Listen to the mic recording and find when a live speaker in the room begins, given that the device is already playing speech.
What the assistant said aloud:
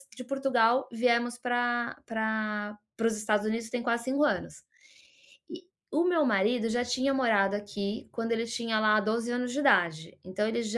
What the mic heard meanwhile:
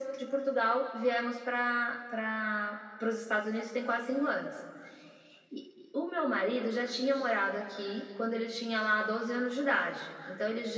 none

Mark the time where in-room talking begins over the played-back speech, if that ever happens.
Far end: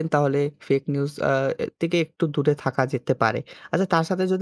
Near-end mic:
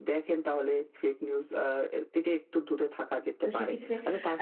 3 s

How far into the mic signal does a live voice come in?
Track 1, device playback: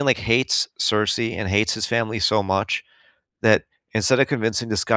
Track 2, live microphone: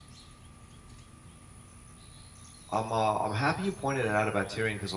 3 s

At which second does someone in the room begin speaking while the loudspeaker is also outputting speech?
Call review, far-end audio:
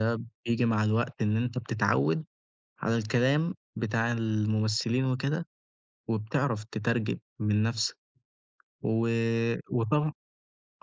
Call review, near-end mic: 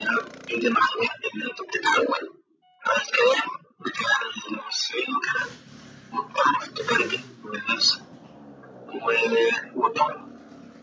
none

